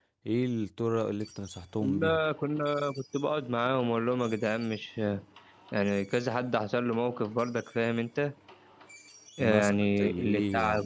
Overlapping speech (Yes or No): Yes